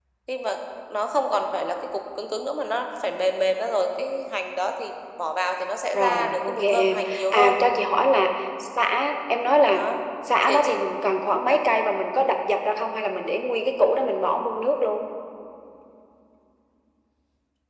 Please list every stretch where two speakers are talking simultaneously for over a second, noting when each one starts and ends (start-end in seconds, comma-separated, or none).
5.9-7.6